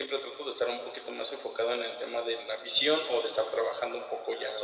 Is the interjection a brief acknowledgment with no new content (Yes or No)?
Yes